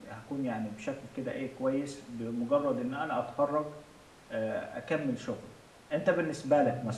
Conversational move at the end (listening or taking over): listening